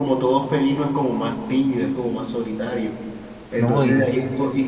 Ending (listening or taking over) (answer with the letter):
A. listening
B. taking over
A